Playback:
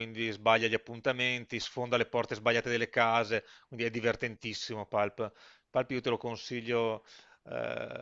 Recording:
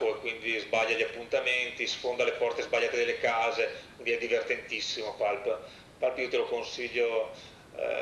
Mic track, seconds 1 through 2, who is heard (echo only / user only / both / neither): echo only